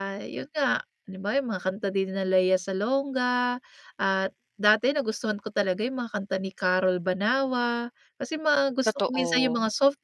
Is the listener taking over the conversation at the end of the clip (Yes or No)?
No